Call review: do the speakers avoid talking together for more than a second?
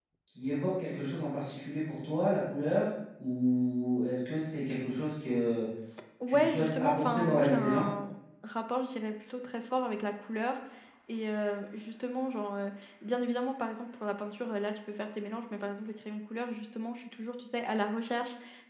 No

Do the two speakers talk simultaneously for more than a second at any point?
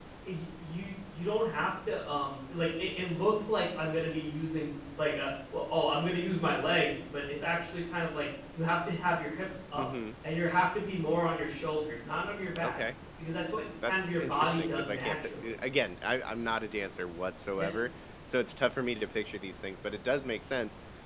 Yes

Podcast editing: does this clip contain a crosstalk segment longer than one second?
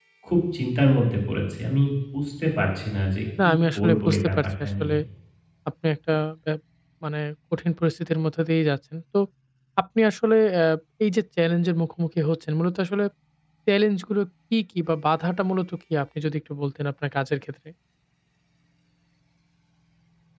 Yes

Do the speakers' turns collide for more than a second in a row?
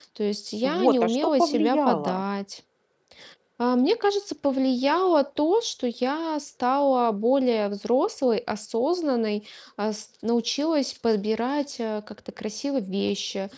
Yes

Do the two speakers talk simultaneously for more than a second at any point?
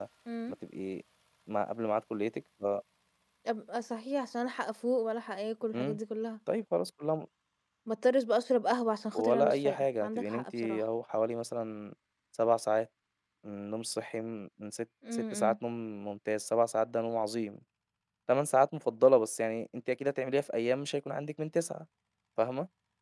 Yes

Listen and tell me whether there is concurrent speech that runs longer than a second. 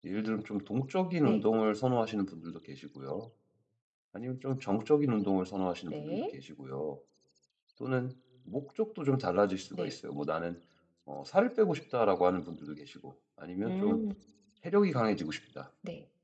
No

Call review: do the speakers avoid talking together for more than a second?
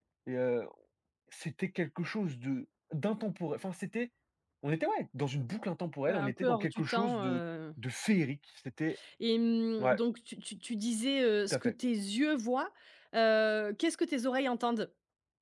No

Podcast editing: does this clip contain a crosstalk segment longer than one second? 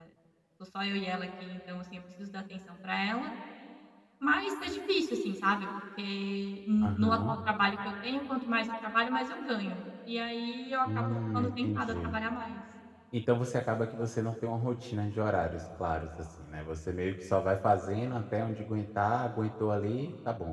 Yes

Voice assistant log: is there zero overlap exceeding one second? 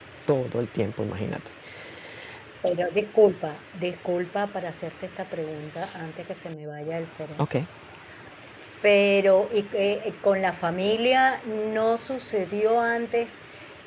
Yes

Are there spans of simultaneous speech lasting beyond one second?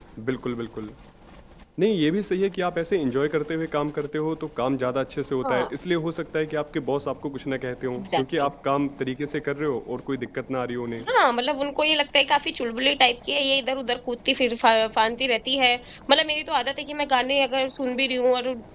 No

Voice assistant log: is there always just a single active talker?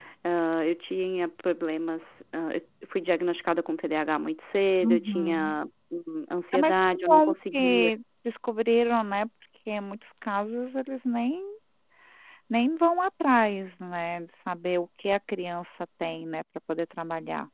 No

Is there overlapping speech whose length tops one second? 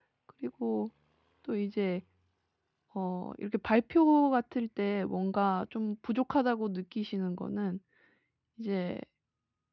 No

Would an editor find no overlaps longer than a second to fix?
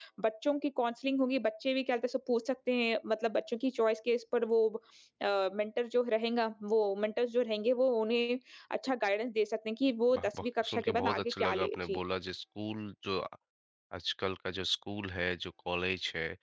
No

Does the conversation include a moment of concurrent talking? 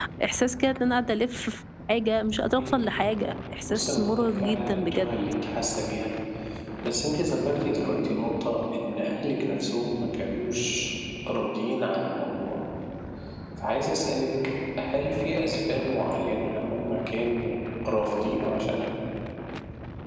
Yes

